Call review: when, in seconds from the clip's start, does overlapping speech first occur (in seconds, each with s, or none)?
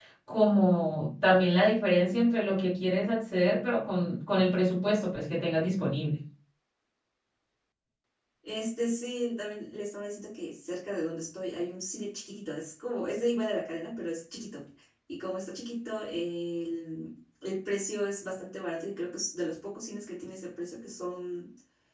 none